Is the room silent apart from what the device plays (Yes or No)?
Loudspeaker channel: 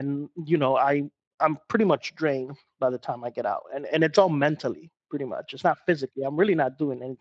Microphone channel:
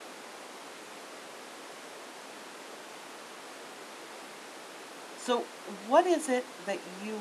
No